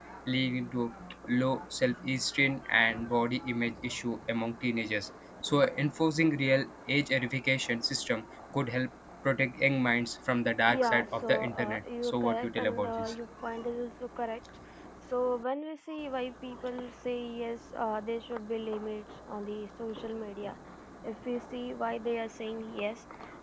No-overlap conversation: No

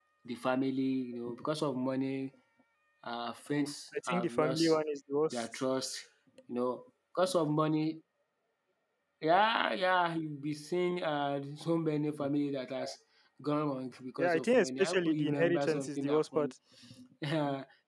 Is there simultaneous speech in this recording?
Yes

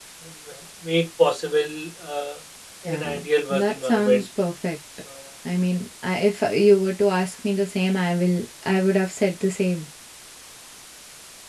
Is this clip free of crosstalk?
No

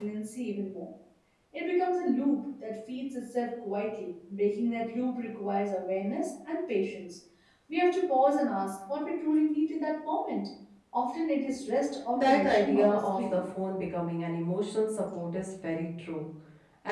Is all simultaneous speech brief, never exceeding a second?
No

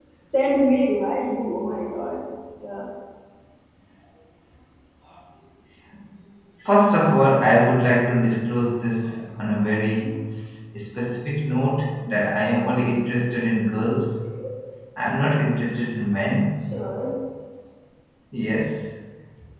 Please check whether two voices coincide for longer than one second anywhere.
No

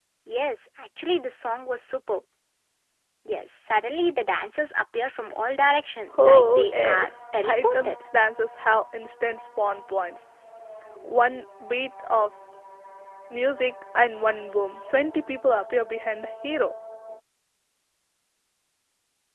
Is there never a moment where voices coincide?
No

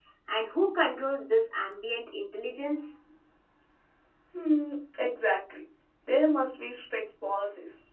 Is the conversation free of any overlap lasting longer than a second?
Yes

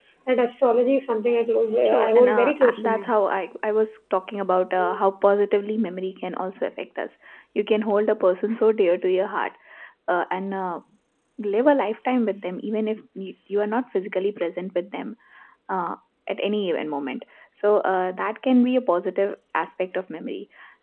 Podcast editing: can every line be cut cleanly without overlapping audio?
No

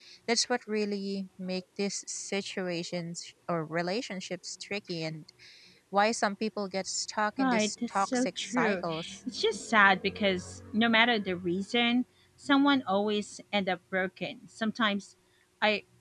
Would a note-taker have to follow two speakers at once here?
Yes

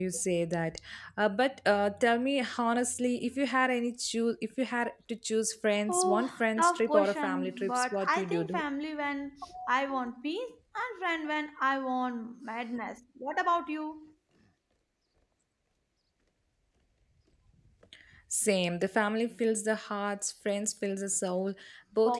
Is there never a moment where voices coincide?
No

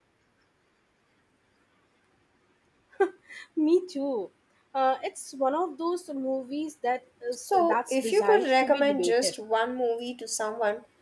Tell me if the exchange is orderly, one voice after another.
No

